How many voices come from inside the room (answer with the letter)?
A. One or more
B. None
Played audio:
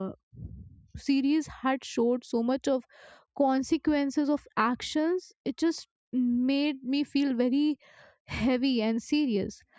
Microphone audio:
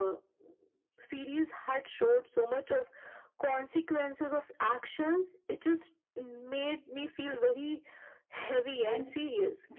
A